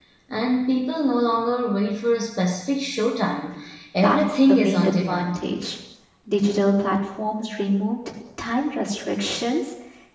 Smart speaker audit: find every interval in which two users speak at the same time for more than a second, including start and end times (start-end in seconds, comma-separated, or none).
4.0-5.4